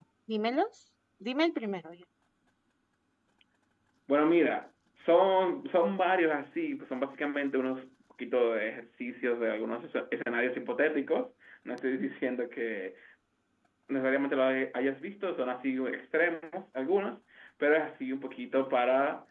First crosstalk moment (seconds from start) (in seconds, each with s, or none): none